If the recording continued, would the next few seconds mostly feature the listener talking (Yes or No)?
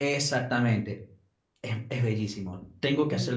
No